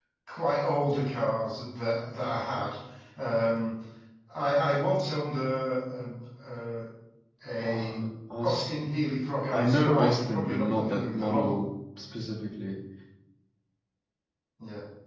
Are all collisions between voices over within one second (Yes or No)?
No